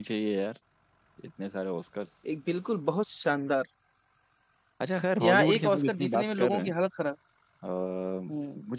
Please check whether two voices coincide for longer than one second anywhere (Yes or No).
Yes